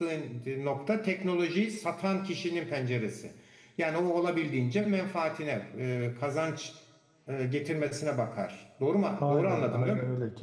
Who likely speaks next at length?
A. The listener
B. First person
A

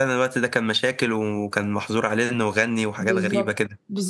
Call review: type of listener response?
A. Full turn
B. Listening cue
A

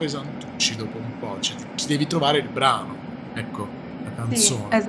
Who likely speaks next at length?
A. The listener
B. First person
A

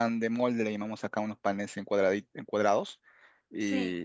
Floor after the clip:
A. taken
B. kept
B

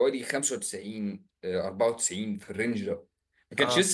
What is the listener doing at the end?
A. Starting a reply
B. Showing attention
B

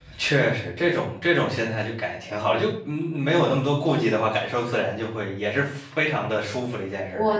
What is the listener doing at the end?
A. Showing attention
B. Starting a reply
B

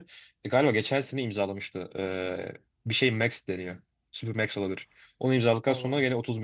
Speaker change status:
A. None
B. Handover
A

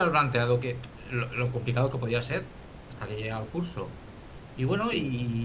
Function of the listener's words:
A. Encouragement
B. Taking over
A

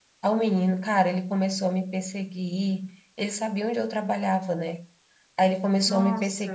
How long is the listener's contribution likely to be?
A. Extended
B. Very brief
B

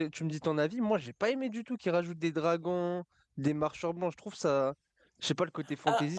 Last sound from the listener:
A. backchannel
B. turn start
B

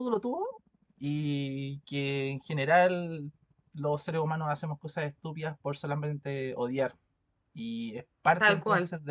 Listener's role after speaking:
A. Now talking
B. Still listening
B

